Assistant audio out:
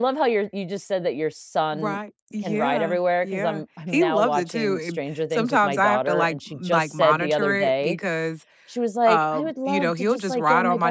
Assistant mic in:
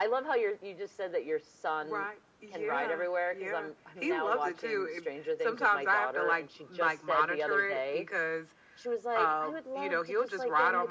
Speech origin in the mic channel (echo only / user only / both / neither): echo only